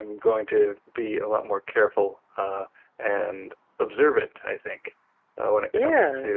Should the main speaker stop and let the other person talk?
No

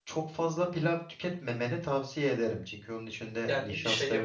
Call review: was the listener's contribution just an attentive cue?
No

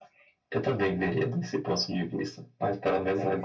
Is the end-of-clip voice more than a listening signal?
No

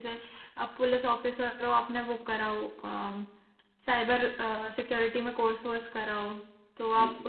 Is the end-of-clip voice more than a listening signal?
No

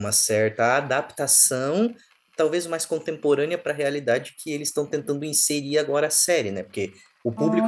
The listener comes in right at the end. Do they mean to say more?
No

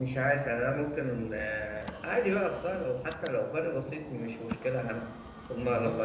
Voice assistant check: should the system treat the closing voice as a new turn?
Yes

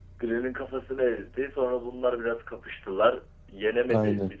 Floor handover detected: No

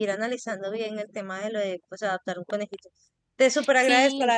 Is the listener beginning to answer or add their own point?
No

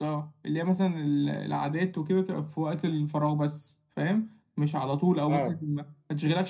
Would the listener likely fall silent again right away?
Yes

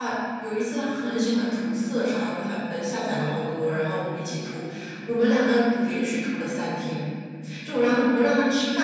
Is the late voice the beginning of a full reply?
No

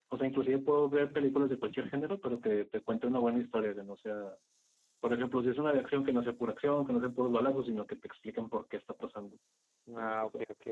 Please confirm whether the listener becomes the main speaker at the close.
Yes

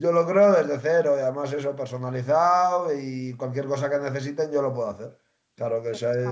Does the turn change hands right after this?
No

